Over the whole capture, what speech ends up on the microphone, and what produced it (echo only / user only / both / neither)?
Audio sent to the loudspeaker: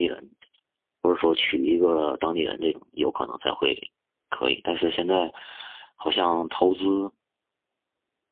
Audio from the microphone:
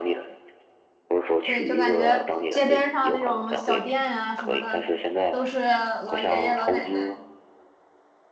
both